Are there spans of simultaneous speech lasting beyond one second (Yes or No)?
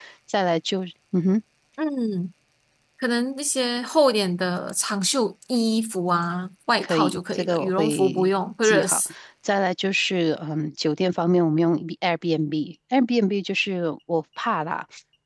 Yes